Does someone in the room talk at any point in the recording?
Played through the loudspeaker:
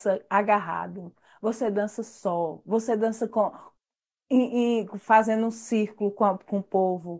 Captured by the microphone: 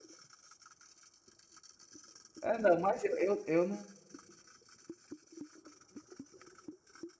Yes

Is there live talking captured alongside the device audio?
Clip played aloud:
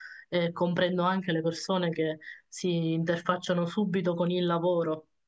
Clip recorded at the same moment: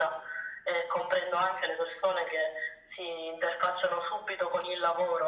No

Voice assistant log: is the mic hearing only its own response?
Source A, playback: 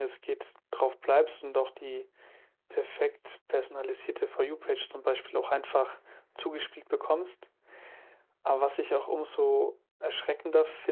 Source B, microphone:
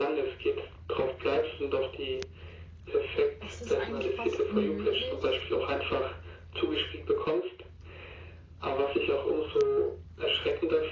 No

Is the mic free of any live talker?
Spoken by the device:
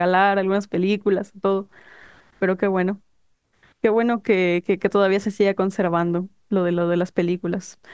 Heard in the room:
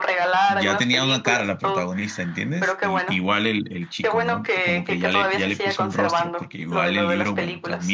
No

